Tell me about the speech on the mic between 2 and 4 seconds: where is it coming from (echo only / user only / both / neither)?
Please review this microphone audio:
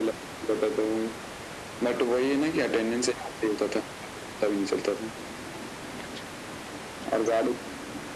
echo only